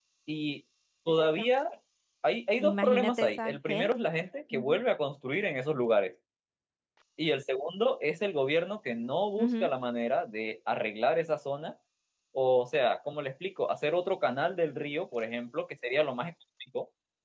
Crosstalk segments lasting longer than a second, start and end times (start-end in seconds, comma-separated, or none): 2.6-3.9